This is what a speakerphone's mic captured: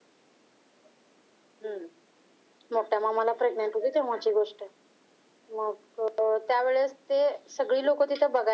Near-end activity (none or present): none